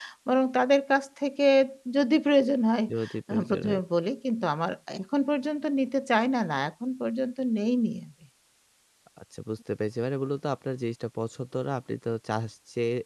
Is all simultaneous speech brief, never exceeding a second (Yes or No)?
Yes